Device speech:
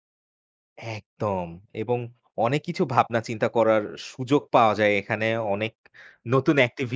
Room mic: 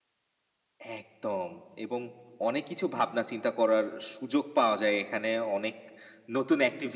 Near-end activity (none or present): none